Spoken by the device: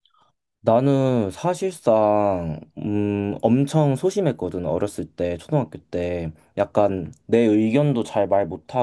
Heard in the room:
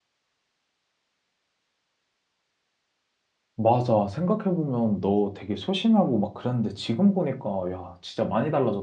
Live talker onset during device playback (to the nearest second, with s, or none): 4 s